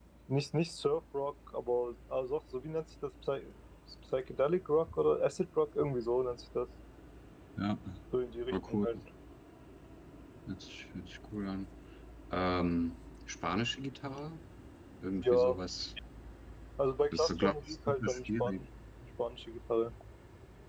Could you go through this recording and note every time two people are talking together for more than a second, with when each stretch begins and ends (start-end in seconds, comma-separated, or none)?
17.1-18.6